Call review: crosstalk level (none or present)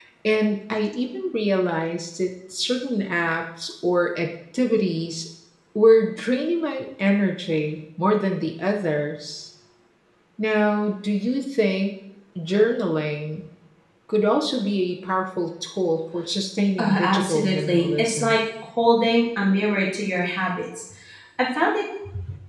present